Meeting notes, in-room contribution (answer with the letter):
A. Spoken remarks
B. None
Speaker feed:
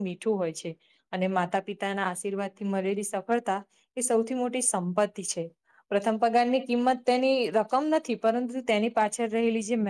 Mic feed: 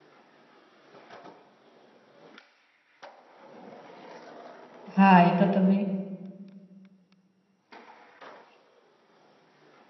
A